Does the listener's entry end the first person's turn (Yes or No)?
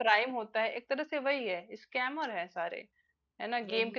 No